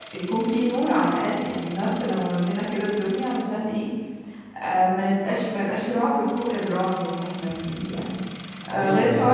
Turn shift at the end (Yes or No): No